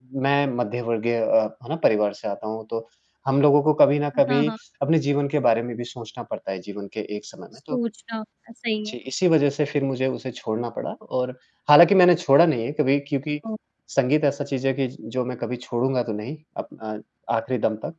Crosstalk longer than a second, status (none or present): none